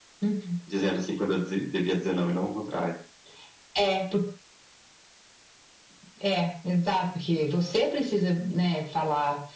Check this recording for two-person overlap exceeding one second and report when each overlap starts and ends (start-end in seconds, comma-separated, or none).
none